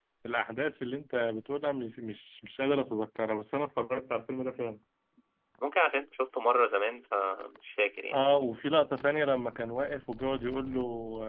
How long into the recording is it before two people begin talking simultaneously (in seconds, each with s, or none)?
none